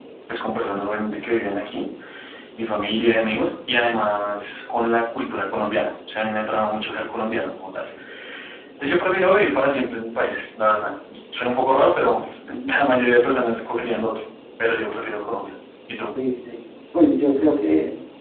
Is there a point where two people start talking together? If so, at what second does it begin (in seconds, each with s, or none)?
none